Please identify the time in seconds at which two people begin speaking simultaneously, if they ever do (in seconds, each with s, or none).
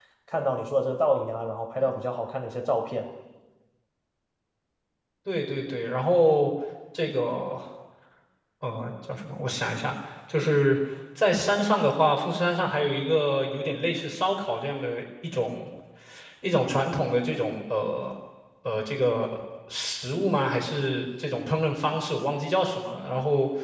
none